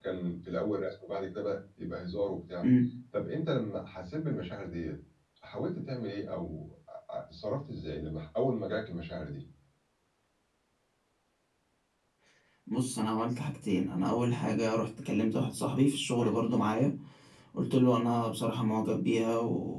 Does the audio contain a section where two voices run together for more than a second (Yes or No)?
No